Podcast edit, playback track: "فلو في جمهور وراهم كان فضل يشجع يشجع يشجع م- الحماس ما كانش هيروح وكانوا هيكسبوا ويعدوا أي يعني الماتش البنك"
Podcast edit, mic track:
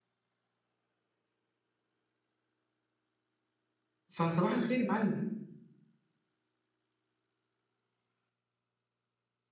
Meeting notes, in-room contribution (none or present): present